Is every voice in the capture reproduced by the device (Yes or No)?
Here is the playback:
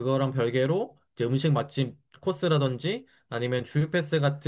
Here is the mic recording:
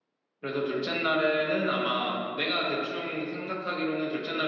No